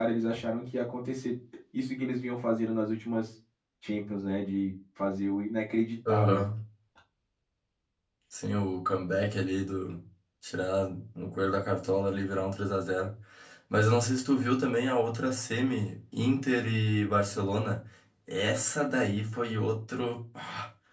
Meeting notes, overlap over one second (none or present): none